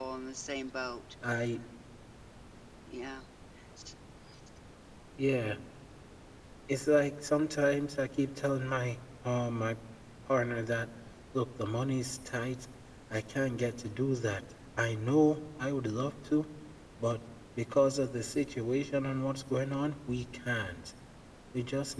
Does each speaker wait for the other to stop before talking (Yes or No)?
Yes